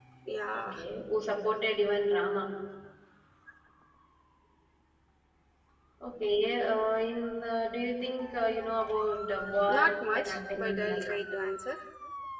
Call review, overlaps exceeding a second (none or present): present